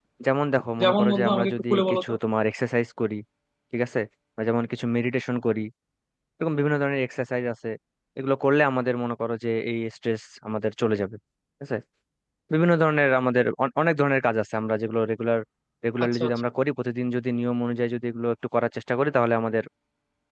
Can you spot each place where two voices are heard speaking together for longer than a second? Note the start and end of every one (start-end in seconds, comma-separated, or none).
0.8-2.0